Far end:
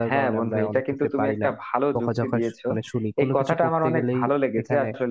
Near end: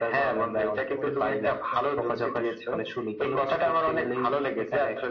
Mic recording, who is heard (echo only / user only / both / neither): both